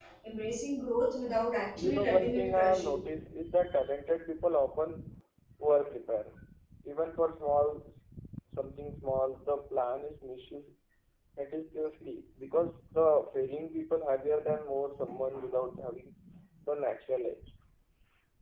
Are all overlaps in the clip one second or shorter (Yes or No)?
No